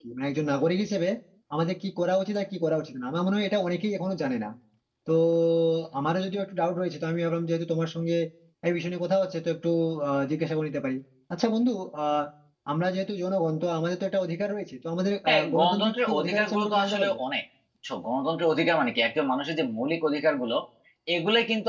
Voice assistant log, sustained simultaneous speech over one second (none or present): present